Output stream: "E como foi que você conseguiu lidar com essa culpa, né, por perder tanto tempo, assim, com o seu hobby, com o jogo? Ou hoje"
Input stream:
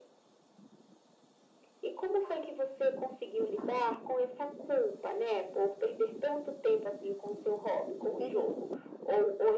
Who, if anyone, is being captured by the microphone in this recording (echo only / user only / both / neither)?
both